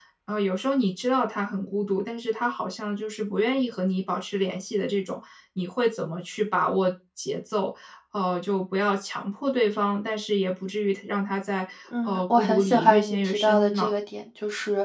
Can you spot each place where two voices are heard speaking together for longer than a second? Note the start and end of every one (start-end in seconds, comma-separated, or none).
12.0-13.9